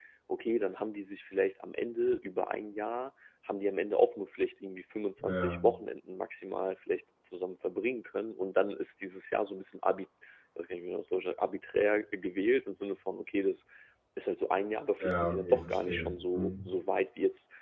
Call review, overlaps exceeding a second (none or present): present